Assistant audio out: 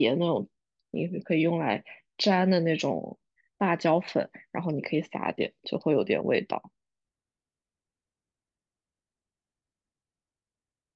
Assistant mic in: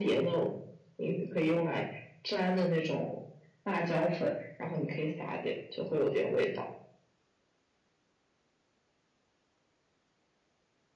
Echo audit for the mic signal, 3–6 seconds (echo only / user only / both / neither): echo only